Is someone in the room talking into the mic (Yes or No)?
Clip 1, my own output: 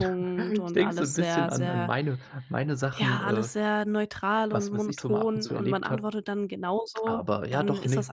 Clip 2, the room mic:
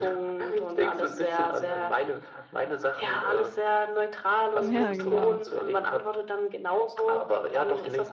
Yes